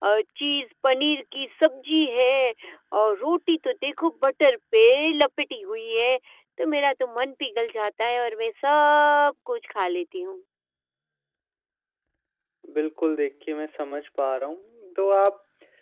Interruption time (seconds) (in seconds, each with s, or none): none